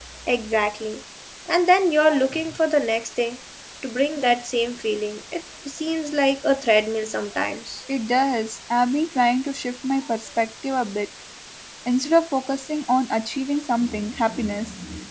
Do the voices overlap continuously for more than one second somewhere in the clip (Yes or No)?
No